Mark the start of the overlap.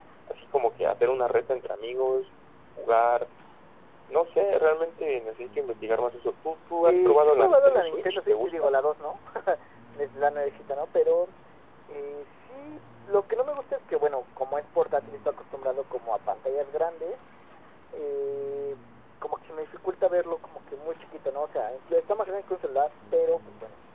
7 s

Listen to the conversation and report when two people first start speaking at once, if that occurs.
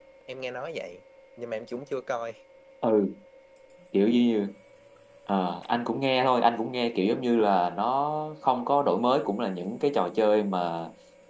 none

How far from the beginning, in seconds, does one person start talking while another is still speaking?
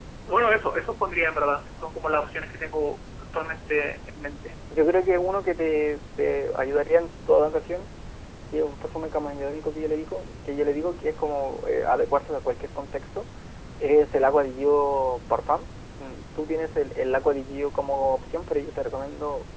none

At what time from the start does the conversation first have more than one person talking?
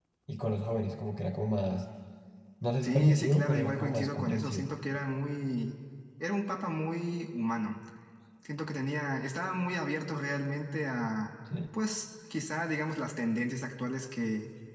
3 s

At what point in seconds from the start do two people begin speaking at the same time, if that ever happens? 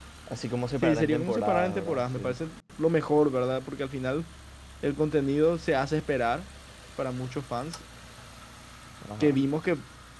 1 s

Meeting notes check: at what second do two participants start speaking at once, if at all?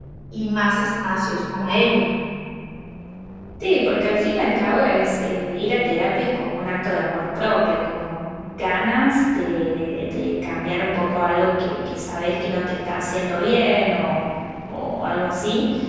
none

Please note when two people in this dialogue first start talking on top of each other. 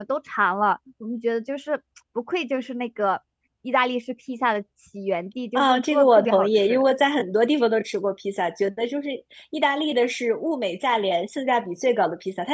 6 s

